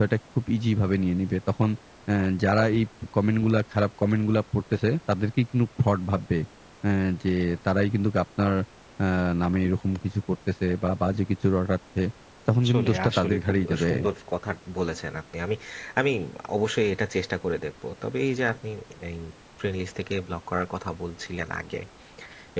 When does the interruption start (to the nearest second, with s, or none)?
13 s